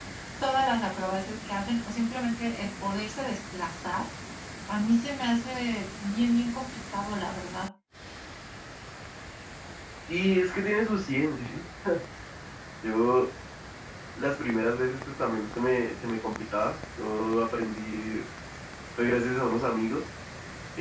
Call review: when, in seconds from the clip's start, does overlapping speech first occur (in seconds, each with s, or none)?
none